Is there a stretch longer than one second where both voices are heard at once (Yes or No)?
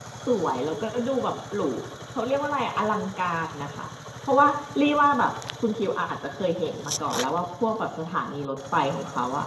No